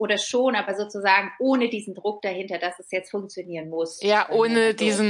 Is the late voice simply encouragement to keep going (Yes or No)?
No